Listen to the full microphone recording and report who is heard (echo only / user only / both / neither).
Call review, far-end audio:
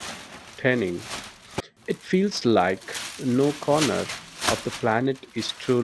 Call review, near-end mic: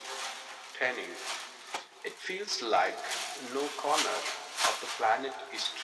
echo only